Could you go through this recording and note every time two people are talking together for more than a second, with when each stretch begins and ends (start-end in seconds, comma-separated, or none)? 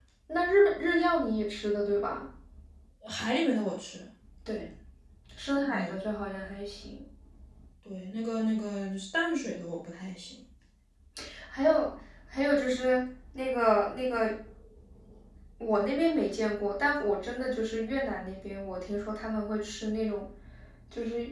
none